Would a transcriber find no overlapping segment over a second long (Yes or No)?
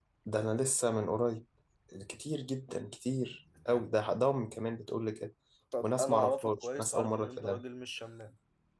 No